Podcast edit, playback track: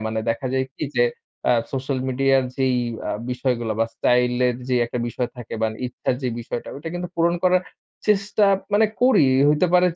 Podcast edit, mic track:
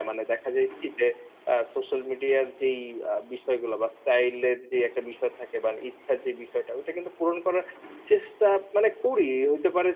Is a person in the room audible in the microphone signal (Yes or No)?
No